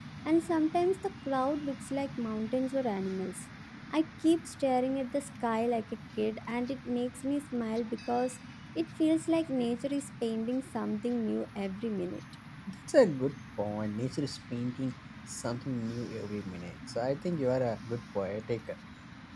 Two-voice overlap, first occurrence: none

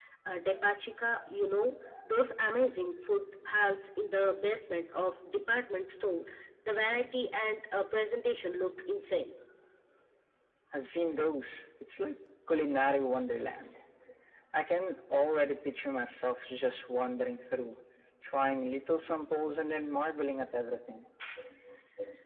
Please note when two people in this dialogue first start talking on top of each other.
none

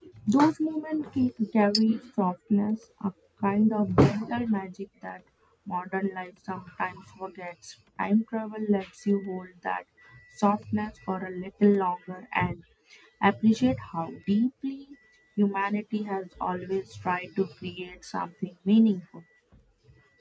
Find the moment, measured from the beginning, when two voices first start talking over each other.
none

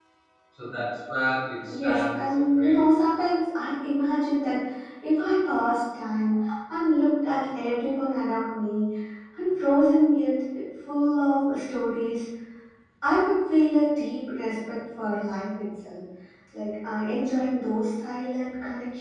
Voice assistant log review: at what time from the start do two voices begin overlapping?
1.7 s

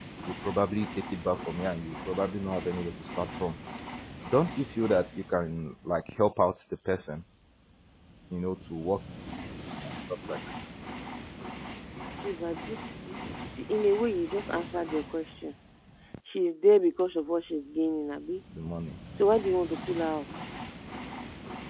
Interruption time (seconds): none

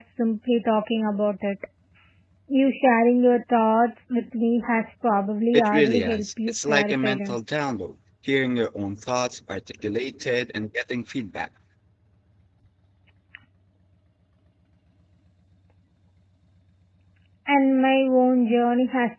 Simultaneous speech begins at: 5.5 s

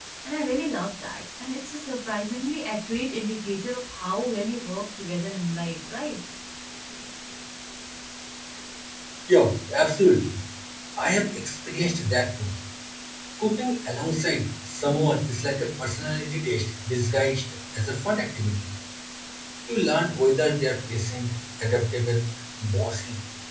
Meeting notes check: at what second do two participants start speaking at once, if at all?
none

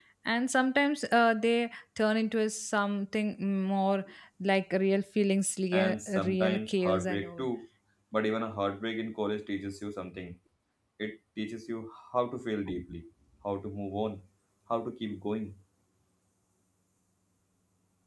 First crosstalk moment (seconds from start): 5.7 s

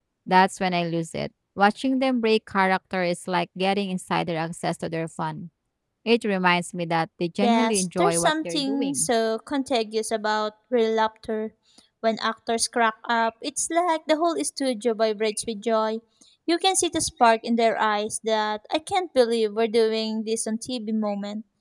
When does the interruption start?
7.4 s

